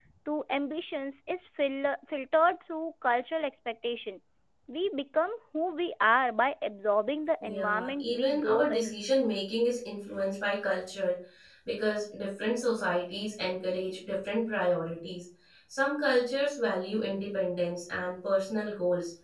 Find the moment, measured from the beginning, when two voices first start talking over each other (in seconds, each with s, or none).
7.4 s